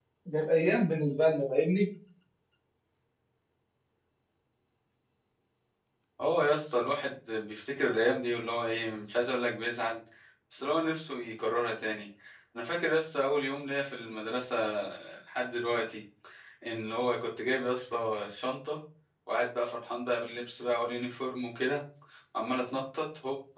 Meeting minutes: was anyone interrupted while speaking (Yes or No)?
No